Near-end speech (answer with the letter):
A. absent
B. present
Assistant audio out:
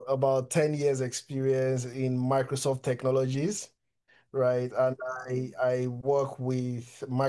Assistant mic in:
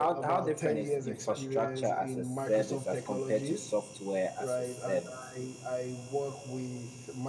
B